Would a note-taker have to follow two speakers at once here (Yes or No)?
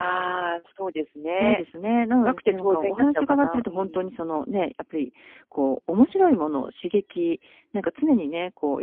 Yes